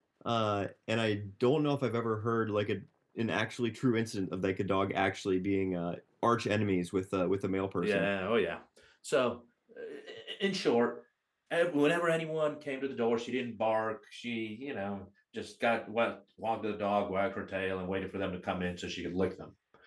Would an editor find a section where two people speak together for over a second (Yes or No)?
No